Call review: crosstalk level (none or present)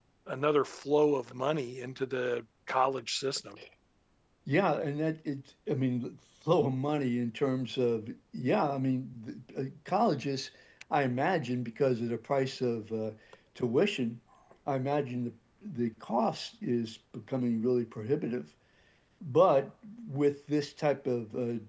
none